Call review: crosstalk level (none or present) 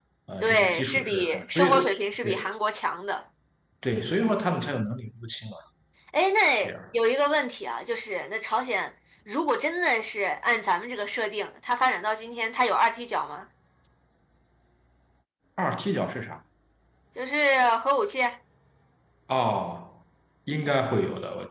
present